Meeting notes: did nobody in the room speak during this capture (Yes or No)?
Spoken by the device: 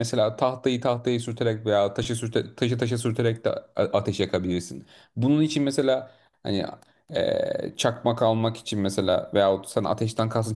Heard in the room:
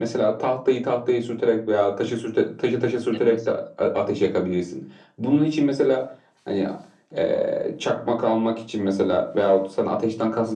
No